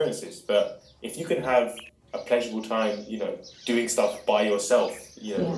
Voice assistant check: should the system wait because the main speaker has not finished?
Yes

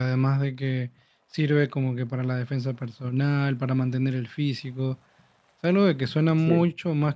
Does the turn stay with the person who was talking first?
Yes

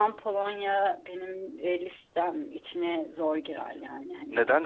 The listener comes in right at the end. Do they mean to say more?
Yes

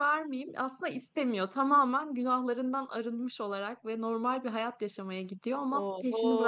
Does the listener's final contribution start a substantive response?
Yes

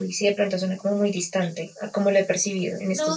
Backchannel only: No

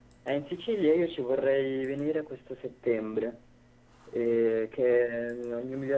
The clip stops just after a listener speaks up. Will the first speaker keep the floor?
Yes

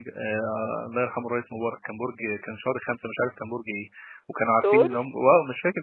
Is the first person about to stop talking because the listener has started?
No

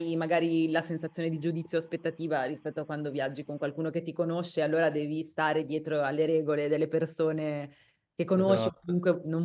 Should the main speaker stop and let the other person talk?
No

